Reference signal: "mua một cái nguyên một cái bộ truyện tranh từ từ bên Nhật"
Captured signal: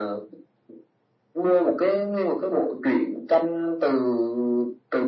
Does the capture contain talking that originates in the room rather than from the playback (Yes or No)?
No